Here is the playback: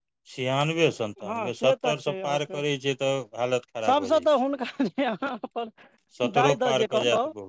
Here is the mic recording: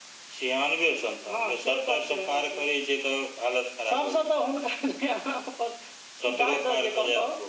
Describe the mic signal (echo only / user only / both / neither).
echo only